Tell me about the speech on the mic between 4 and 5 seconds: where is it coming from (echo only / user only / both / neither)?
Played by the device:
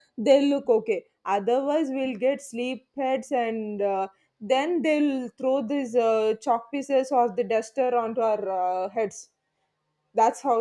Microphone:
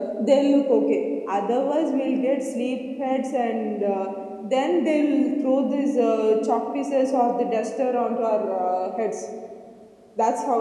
echo only